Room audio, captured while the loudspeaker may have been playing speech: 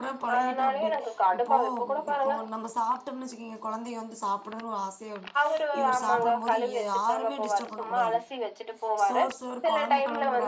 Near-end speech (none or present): present